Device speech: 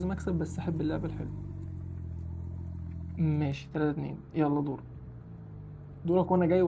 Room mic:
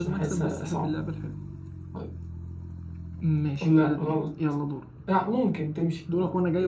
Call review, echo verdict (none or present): present